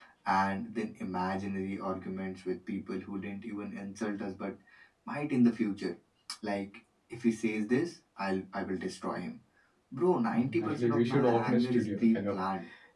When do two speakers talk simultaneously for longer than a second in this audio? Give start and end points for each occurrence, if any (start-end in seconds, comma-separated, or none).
10.3-12.4